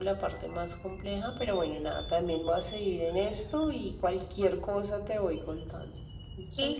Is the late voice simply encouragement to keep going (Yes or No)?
No